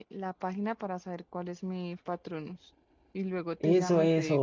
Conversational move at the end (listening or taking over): taking over